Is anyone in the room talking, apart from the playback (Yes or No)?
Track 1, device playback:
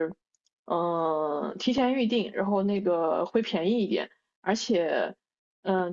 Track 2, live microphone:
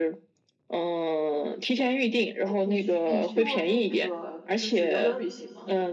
Yes